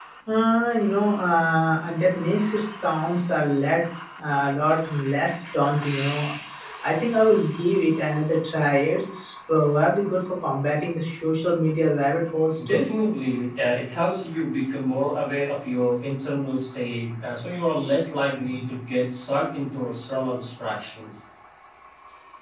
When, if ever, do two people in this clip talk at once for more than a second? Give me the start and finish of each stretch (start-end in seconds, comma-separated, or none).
none